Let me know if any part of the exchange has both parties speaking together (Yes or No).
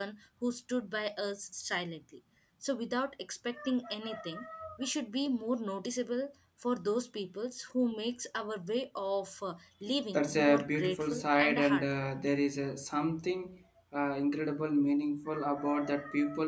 Yes